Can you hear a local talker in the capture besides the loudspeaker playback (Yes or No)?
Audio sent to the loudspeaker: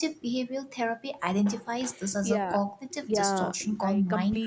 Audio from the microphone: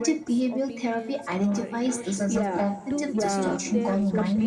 Yes